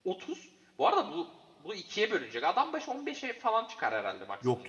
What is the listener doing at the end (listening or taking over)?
taking over